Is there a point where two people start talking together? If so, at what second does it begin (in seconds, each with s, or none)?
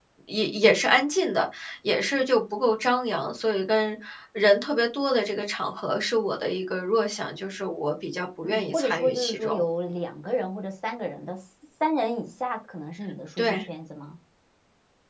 8.4 s